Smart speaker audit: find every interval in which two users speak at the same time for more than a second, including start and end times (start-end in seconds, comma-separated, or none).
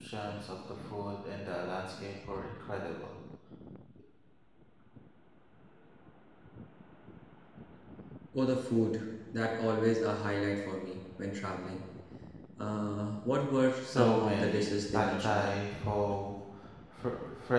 13.9-15.5